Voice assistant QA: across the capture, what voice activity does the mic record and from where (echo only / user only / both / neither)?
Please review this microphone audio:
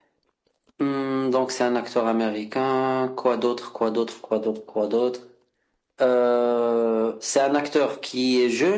echo only